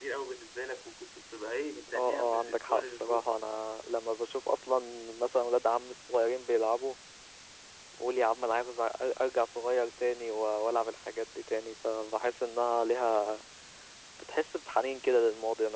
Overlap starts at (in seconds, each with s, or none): 1.9 s